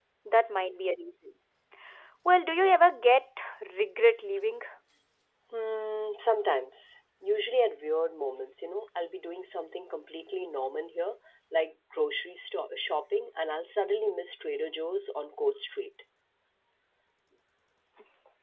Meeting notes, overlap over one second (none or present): none